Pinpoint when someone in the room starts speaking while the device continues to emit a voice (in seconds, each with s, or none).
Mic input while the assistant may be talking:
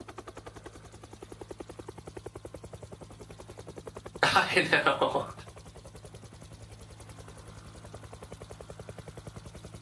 4.2 s